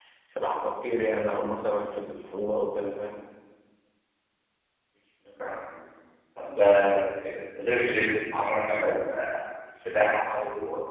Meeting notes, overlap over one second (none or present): none